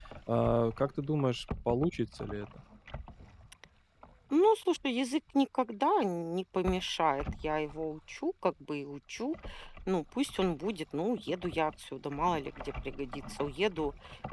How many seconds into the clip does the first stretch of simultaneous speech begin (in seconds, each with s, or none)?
none